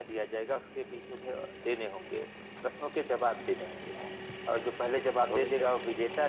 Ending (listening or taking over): listening